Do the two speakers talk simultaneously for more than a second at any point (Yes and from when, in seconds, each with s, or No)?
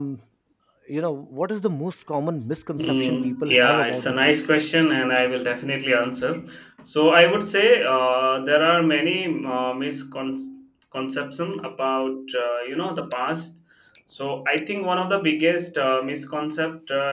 Yes, from 2.8 s